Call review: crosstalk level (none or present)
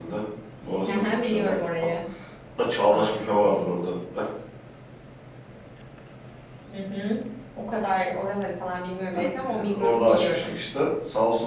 present